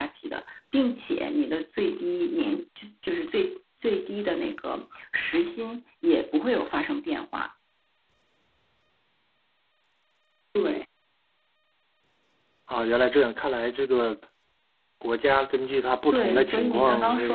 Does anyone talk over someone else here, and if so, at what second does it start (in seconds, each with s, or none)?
16.1 s